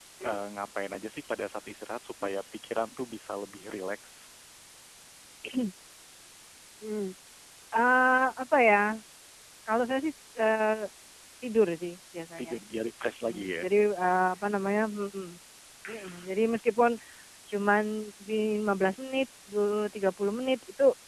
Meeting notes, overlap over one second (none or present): none